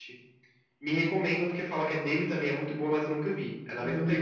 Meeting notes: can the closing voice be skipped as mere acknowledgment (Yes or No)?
No